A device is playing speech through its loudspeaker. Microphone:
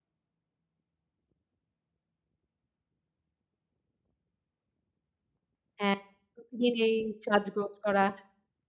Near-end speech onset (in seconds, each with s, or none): 5.8 s